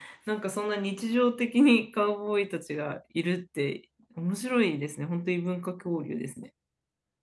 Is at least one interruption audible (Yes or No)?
No